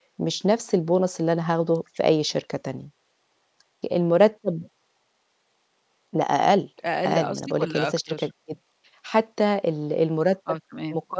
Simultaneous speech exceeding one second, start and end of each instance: 7.0-8.3

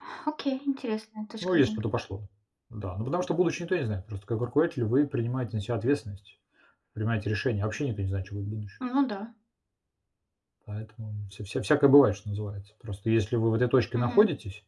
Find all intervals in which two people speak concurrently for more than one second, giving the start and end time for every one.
none

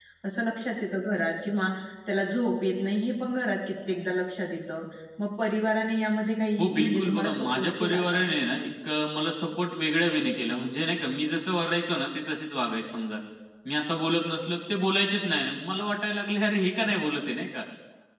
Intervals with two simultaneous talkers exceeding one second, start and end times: 6.6-8.2

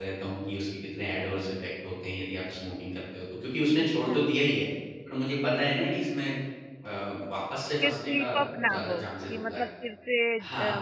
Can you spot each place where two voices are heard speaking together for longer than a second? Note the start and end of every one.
7.8-9.6

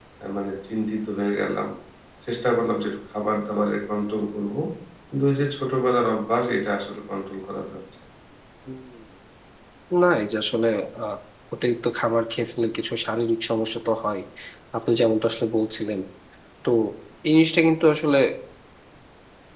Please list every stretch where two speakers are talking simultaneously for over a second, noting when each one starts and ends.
none

